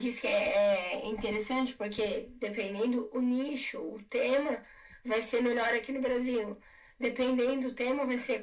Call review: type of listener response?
listening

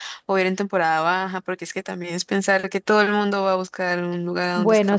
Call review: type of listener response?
taking over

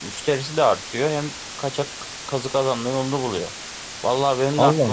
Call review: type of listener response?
listening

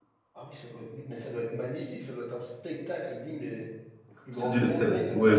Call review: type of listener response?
taking over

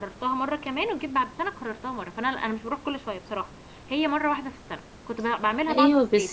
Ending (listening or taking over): taking over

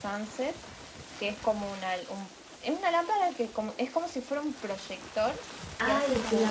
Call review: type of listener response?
taking over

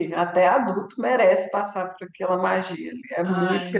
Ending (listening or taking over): listening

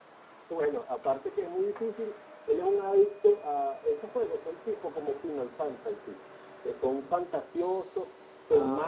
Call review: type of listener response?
listening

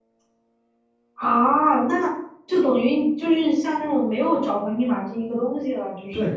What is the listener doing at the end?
taking over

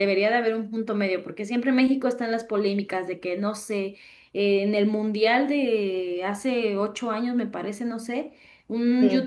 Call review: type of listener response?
listening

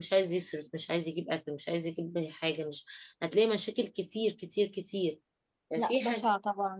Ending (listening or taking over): taking over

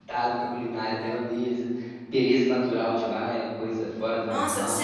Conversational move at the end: taking over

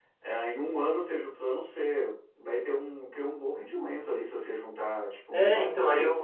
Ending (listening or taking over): taking over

